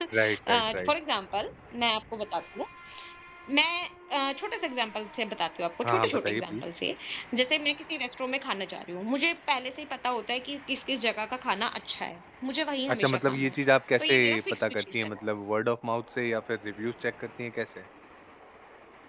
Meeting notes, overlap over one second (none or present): present